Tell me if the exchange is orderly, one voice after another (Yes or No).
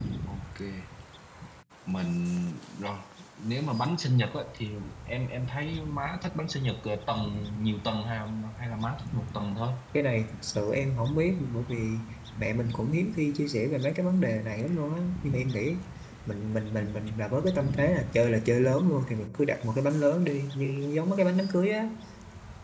Yes